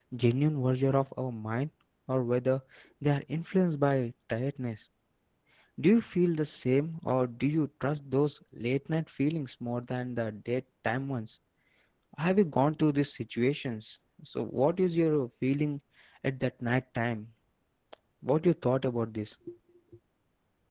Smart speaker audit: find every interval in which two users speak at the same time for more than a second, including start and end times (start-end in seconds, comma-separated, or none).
none